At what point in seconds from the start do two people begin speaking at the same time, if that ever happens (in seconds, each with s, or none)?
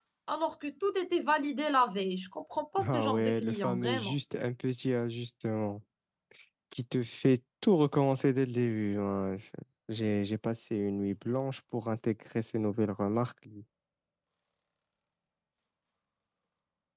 2.8 s